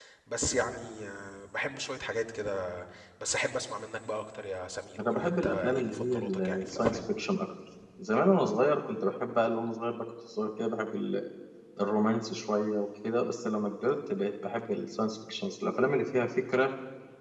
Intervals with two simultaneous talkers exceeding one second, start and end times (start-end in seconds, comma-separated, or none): 5.0-7.0